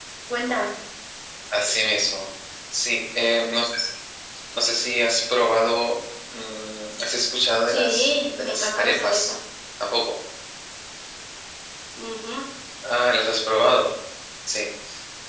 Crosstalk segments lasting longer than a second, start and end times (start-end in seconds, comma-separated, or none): 7.7-9.3